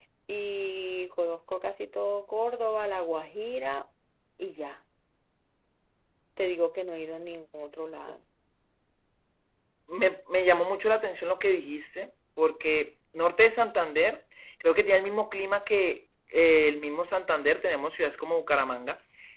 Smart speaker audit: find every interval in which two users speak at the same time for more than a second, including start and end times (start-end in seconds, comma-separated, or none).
none